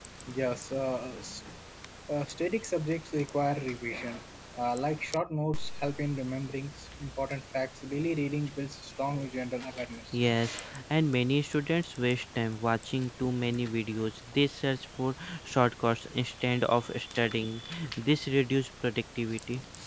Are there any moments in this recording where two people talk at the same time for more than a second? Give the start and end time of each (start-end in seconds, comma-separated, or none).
none